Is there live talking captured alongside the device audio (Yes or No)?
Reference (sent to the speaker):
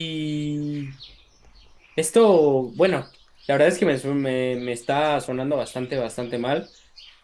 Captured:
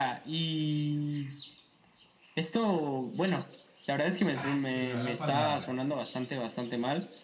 Yes